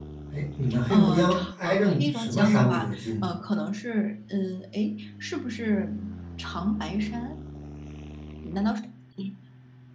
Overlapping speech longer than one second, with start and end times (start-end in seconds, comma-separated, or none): 0.9-3.3